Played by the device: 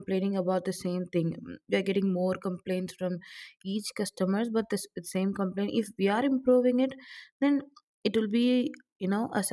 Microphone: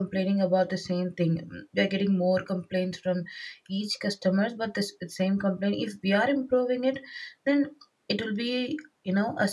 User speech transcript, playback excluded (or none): none